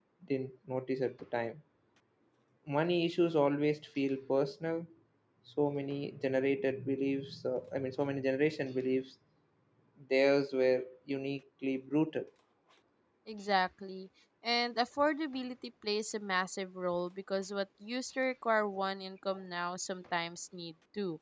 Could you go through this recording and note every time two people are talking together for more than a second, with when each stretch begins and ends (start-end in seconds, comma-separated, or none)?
none